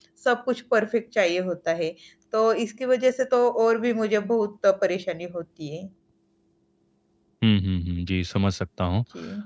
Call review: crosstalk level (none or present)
none